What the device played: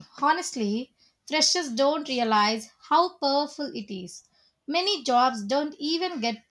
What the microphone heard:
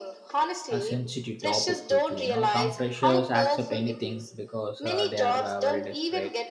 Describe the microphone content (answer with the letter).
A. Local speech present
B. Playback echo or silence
A